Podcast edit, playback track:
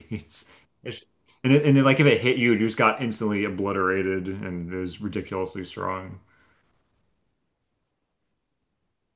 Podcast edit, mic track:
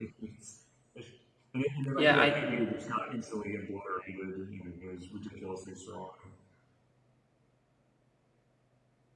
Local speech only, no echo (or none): Yeah, I